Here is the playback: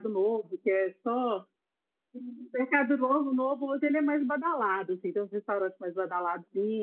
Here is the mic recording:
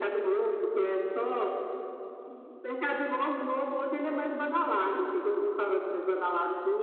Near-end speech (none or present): none